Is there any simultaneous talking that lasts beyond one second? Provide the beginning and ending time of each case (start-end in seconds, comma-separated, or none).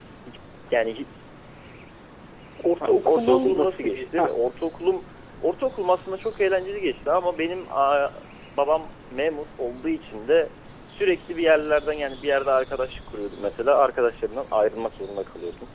2.9-4.4